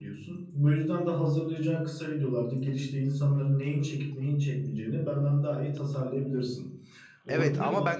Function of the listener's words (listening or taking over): taking over